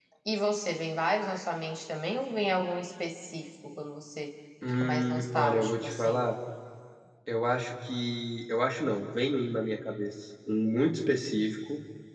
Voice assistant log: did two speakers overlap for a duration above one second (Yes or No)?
Yes